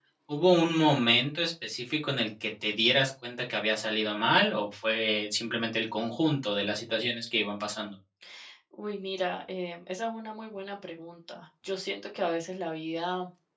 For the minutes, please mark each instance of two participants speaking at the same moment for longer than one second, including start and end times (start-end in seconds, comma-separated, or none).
none